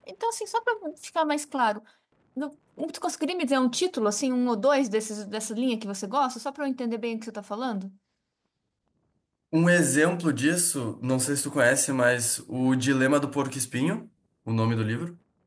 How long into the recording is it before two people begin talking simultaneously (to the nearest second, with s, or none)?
none